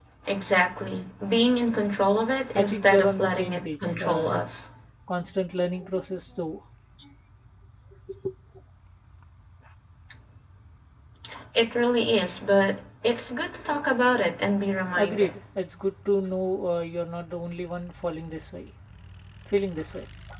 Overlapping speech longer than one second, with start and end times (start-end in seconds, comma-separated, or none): 2.6-4.6